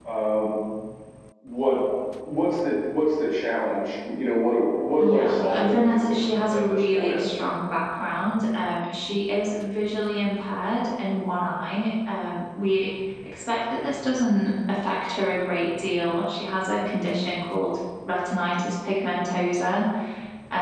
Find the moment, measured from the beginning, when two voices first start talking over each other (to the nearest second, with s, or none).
5 s